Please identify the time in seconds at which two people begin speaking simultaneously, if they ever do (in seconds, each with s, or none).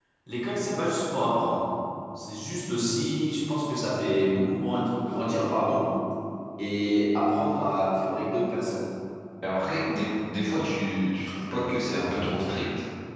none